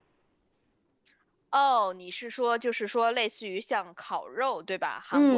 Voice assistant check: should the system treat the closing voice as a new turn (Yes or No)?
Yes